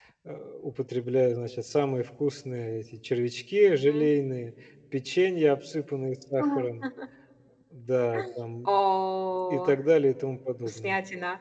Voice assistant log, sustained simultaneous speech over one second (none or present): none